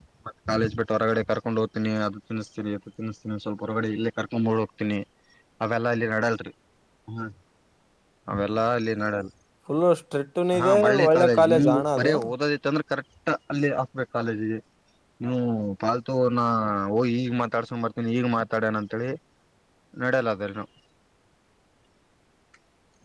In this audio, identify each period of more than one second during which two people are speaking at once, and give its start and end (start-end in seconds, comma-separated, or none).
10.6-12.1